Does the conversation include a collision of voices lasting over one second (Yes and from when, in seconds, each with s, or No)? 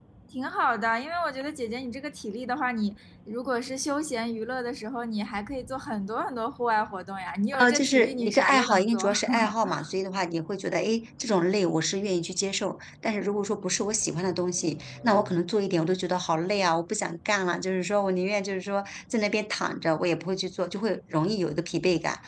Yes, from 7.5 s